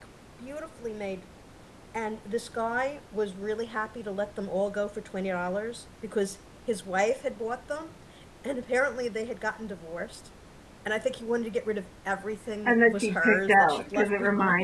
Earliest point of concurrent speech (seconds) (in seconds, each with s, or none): 12.7 s